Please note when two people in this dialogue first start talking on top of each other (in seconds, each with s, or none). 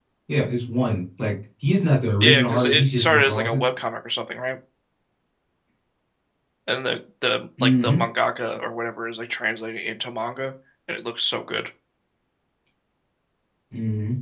2.2 s